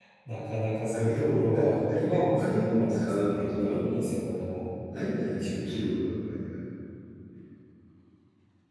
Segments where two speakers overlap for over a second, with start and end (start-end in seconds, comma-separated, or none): 0.9-4.1